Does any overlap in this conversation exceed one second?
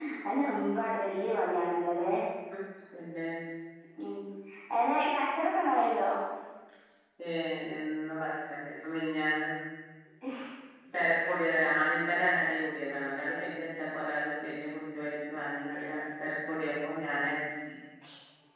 No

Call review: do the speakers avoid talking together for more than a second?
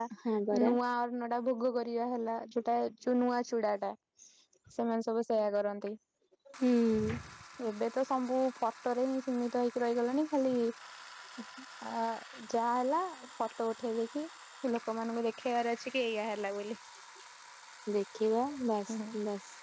Yes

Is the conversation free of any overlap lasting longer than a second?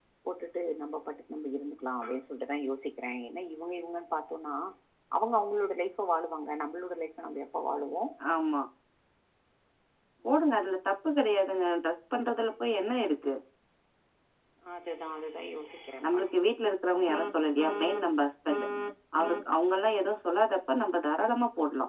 Yes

